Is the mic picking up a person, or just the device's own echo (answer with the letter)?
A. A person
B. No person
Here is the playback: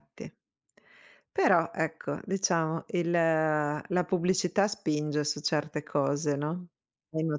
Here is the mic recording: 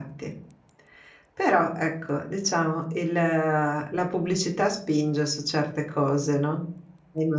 B